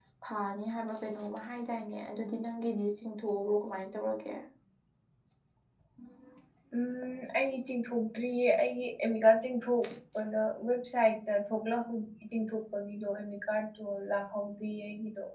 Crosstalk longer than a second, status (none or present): none